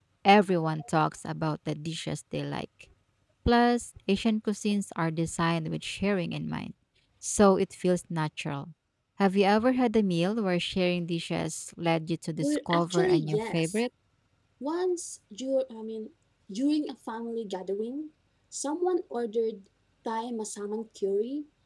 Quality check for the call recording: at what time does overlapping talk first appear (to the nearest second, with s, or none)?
12 s